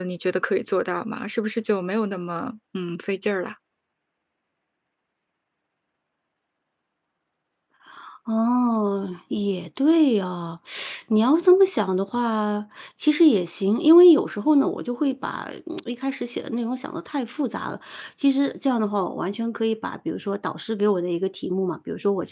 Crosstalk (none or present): none